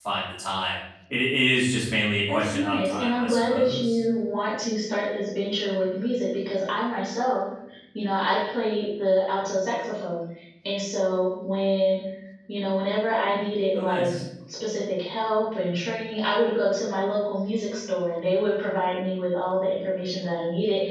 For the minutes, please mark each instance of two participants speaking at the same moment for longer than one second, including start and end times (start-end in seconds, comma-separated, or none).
2.3-4.0